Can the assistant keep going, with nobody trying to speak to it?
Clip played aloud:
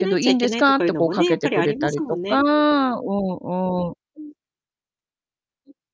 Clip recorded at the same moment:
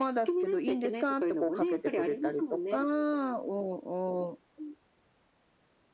Yes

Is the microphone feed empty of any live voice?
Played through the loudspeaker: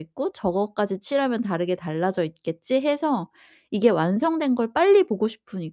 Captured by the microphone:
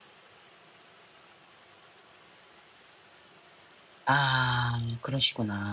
No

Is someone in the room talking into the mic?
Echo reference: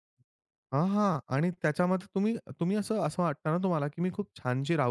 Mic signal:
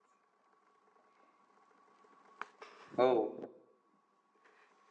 Yes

